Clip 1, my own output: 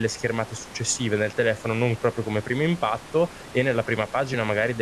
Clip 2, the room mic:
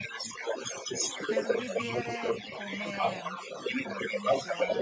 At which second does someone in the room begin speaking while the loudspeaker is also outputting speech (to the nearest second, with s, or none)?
1 s